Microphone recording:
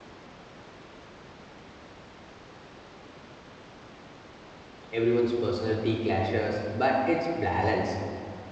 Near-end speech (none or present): present